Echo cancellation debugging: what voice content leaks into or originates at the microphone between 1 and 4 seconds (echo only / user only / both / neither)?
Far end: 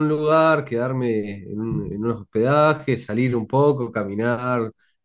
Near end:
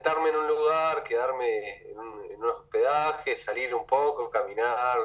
echo only